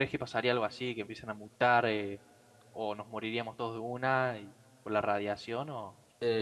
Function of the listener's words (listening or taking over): taking over